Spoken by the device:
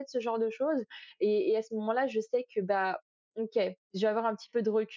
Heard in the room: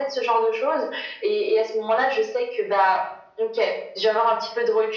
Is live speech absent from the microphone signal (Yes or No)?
Yes